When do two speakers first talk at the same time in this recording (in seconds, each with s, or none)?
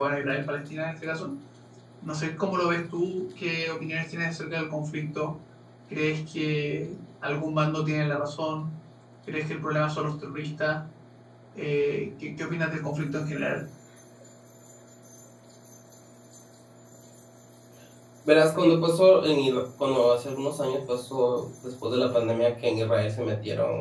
none